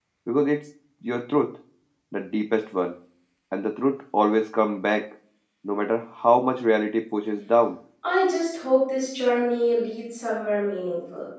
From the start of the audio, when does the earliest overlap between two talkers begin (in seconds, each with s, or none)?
none